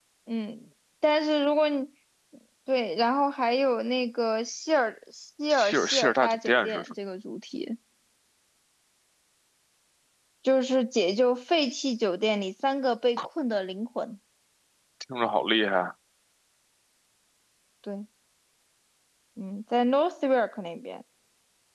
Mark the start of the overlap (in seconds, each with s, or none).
5.5 s